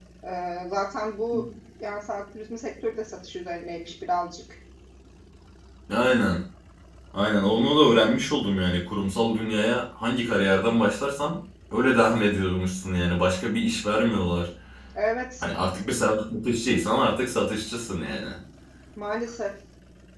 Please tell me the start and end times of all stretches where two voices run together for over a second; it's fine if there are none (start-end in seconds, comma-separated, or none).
none